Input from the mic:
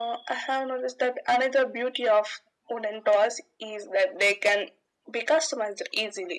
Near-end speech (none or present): none